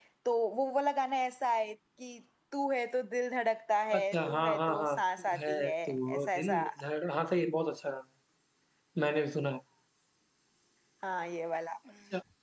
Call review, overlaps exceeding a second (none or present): present